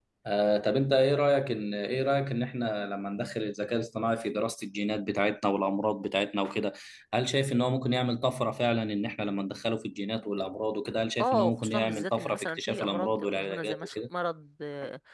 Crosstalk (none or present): present